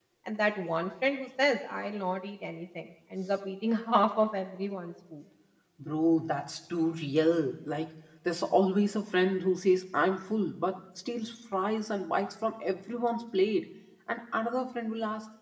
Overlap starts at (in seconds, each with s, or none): none